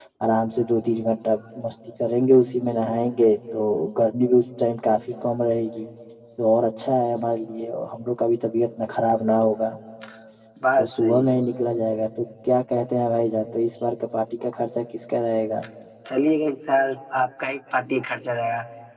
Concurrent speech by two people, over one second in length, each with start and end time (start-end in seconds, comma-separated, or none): none